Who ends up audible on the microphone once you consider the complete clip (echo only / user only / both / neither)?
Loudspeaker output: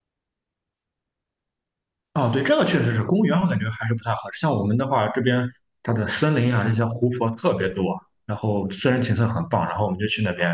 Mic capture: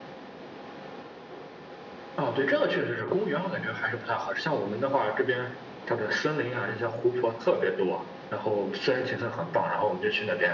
echo only